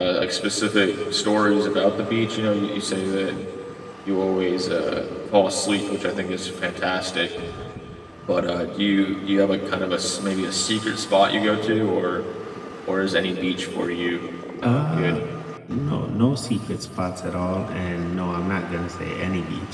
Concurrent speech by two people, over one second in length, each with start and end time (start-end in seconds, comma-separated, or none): none